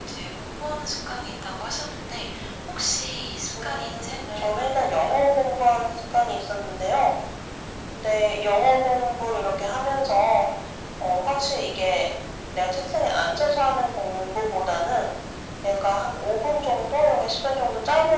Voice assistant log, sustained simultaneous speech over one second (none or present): present